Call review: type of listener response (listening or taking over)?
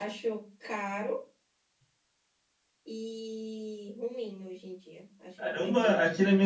taking over